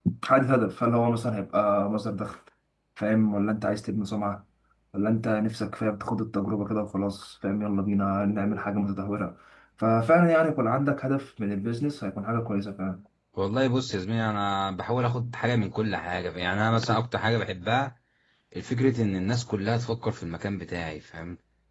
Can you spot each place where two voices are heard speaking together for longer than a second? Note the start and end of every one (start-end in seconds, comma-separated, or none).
none